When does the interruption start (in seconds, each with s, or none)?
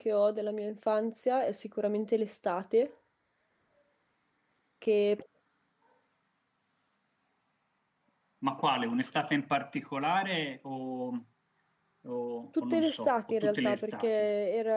12.7 s